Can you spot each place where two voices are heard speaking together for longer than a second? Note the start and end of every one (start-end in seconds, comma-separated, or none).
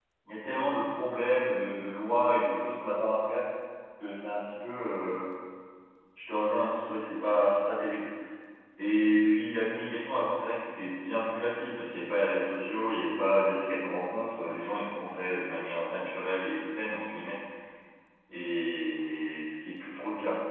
none